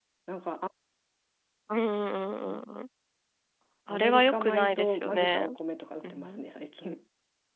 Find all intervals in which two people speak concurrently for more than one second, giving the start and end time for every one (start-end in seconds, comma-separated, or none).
3.9-5.5